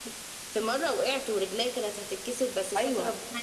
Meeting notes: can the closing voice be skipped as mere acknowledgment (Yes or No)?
No